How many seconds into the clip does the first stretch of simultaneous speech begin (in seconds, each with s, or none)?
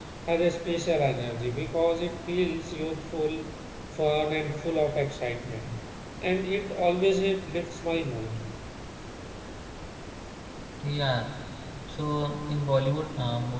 none